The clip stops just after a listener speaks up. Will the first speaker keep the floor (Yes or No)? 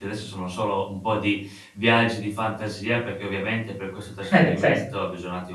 Yes